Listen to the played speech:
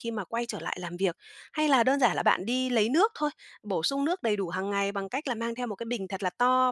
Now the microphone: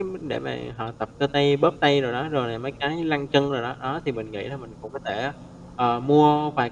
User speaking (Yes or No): Yes